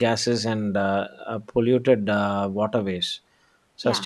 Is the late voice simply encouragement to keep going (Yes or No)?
Yes